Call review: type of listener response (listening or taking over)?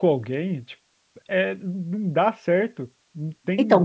taking over